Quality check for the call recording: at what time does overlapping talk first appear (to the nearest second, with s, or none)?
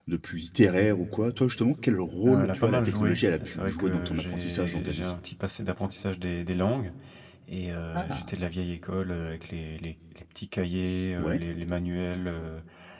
2 s